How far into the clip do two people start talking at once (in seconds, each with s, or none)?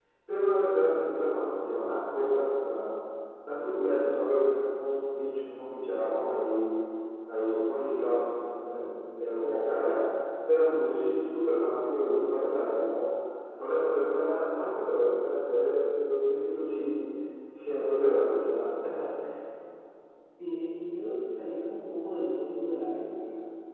none